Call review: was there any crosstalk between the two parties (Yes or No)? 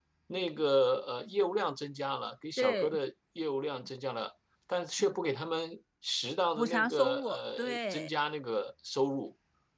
Yes